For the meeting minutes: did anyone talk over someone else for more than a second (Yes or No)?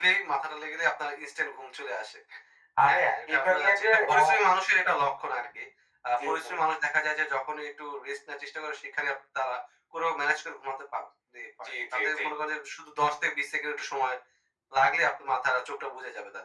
Yes